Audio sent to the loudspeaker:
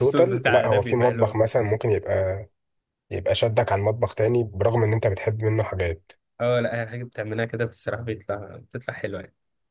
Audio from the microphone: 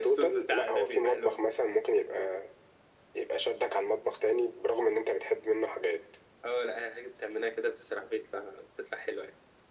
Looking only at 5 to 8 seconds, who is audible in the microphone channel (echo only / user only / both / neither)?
echo only